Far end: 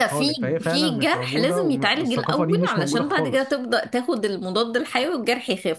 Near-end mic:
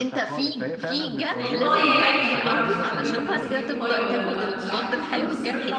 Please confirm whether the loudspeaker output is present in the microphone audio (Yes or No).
Yes